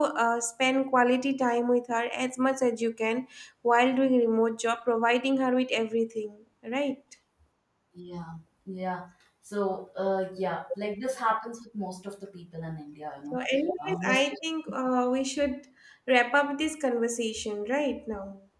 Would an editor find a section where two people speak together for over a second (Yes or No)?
No